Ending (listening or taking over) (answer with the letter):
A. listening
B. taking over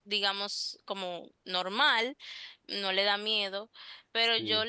A